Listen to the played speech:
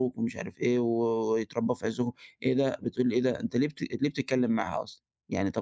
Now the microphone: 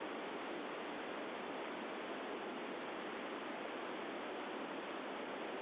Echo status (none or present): none